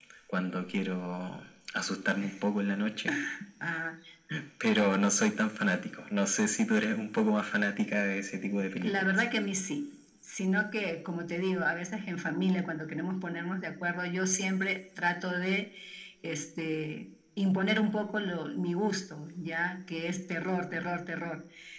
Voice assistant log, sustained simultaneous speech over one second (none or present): none